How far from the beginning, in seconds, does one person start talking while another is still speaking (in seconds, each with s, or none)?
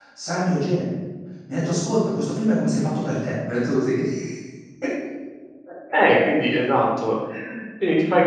none